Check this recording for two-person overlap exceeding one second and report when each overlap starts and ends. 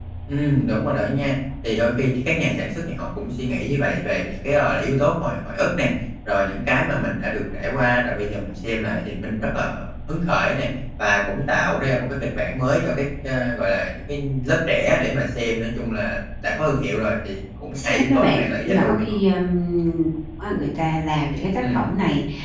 17.8-19.0

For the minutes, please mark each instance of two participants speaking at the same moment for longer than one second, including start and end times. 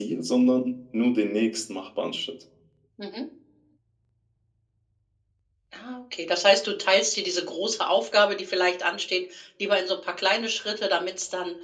none

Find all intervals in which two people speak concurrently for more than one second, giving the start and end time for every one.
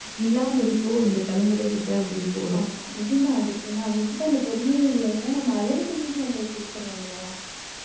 none

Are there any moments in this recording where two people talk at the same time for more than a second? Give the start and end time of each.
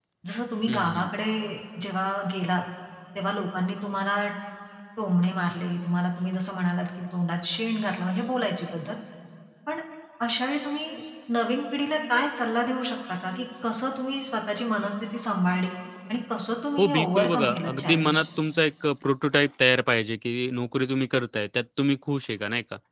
16.8-18.2

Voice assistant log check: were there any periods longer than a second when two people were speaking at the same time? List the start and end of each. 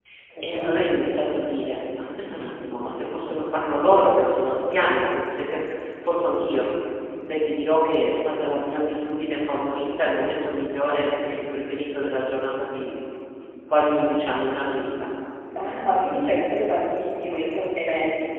none

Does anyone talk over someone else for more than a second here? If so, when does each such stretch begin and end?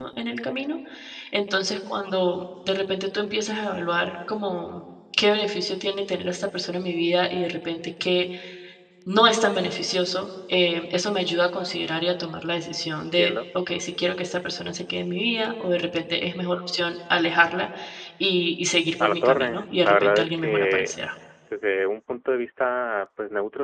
19.0-20.9

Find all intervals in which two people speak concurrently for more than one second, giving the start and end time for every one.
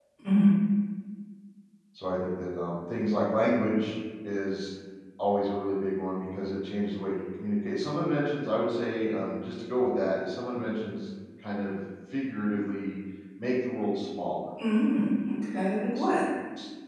none

